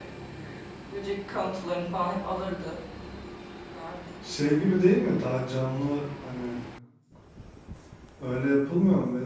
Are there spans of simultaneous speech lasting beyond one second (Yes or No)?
No